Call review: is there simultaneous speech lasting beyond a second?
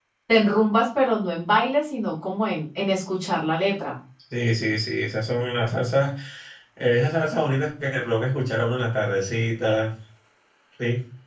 No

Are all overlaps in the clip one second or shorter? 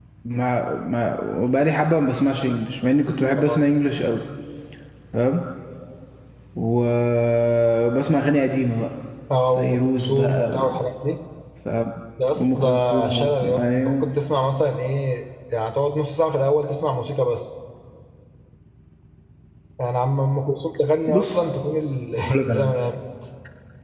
No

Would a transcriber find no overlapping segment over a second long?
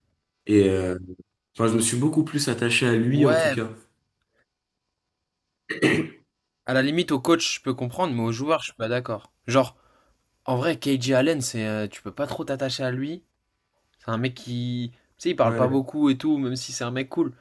Yes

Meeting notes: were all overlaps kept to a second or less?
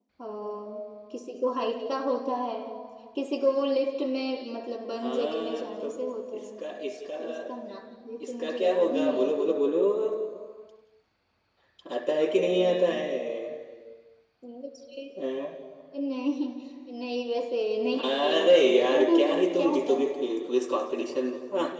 No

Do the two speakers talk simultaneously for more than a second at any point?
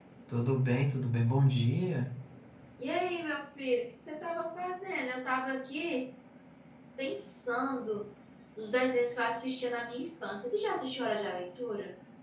No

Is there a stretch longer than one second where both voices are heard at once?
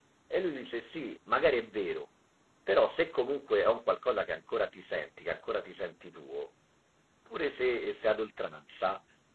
No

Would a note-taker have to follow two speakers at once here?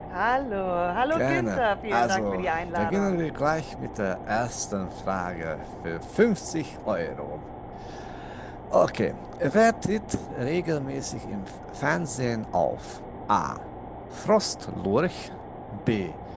Yes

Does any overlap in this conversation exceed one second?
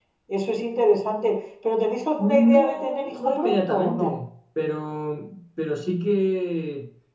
Yes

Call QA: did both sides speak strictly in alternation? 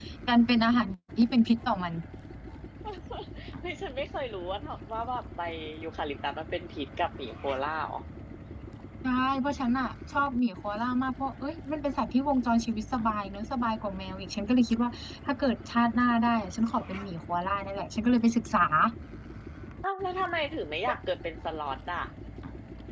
Yes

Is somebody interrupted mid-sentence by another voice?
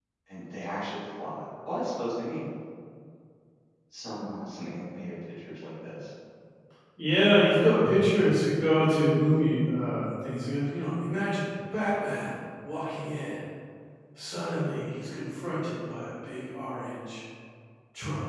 No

